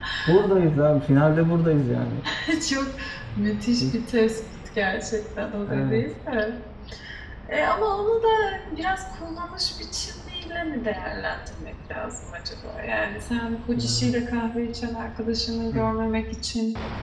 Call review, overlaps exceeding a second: none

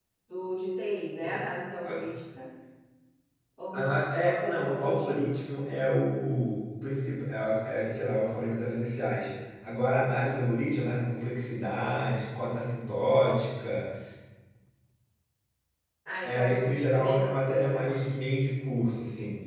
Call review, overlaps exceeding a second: present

